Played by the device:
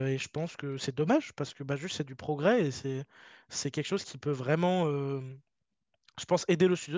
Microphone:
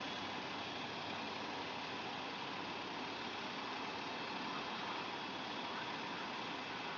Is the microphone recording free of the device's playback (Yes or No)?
Yes